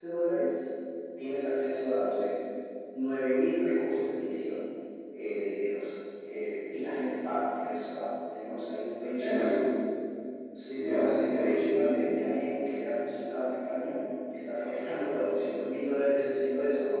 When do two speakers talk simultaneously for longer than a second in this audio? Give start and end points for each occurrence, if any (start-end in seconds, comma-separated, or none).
10.8-12.0